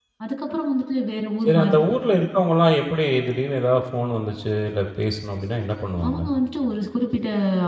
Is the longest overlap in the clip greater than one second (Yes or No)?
No